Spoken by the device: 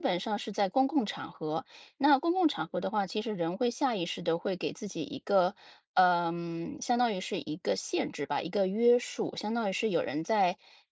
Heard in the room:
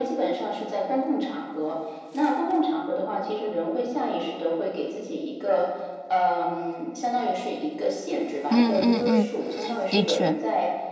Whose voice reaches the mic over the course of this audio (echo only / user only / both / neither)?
both